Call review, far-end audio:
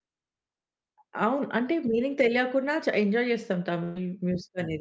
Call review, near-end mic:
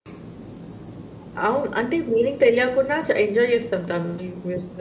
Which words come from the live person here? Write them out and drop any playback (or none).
none